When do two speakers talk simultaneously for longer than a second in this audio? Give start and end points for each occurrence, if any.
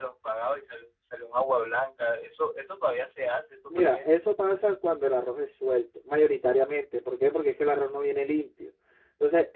none

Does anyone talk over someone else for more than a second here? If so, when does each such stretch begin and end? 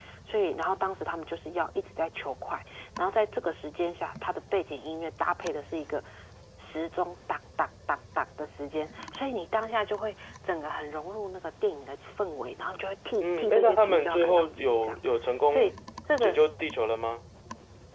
13.2-15.0

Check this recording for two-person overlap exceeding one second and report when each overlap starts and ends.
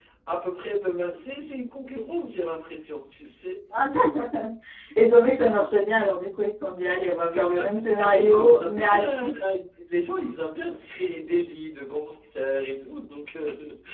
7.3-9.2

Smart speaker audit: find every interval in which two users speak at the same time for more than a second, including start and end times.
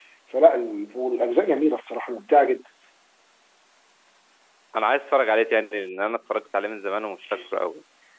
none

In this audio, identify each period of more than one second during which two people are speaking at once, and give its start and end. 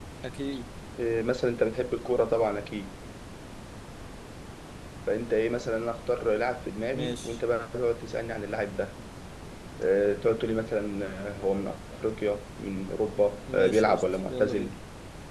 13.5-14.7

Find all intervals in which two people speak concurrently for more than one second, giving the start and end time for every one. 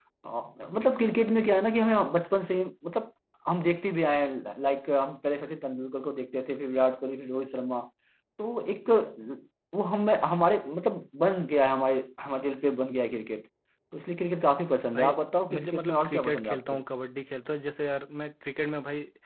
15.5-16.8

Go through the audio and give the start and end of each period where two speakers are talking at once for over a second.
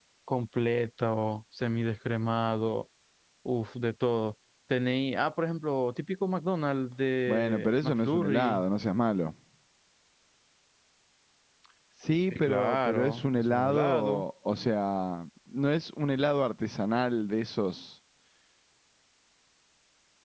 7.3-8.6, 12.3-14.2

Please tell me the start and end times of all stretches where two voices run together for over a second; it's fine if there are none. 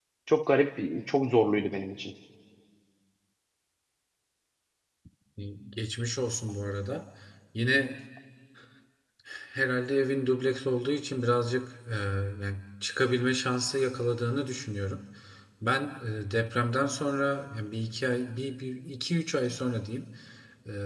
none

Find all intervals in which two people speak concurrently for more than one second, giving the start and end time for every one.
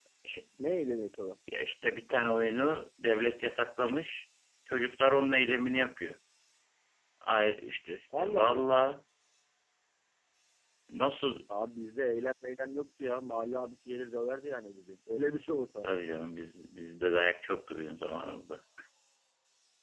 none

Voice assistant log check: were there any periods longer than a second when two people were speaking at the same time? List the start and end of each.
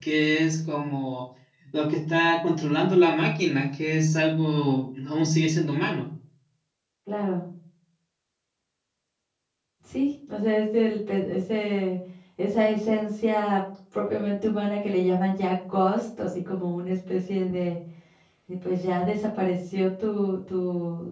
none

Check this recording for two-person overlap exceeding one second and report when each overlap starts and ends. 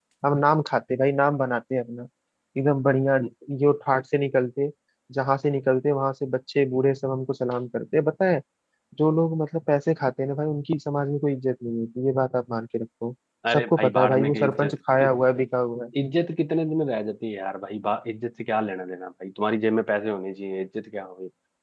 13.5-14.7

